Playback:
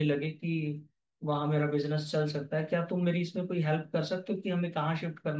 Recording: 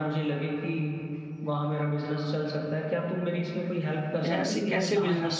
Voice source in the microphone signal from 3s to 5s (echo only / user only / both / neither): both